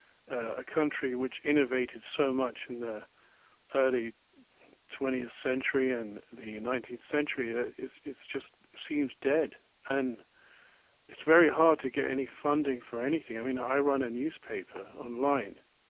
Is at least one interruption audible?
No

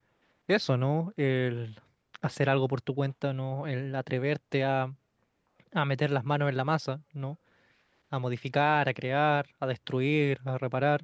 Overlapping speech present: No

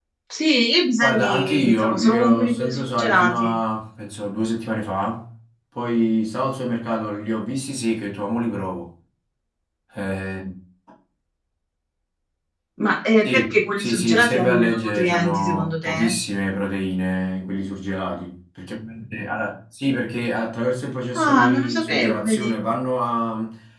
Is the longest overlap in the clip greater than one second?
Yes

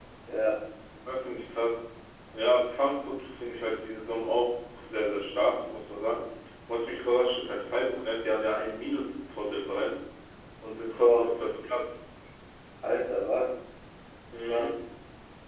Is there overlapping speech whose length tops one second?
No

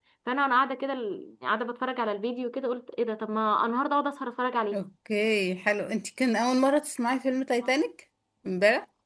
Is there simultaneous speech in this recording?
No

